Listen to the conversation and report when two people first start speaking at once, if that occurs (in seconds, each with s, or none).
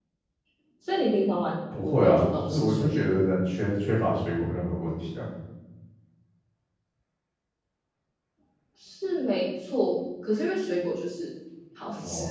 1.7 s